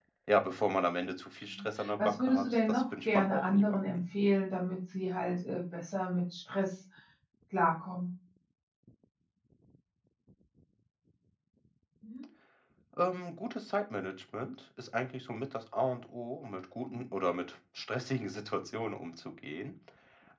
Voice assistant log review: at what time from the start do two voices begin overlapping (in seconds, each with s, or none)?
1.5 s